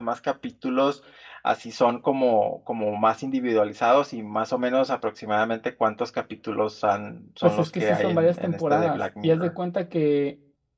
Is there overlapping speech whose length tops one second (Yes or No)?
Yes